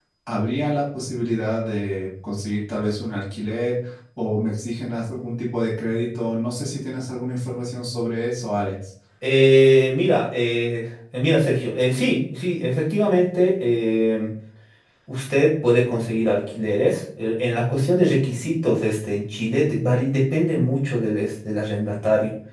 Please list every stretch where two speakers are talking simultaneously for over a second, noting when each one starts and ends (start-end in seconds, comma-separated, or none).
none